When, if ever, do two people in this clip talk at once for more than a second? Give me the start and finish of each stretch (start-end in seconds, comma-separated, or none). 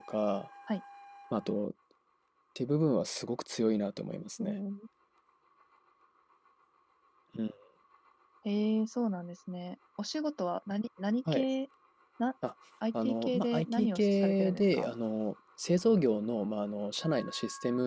12.9-14.9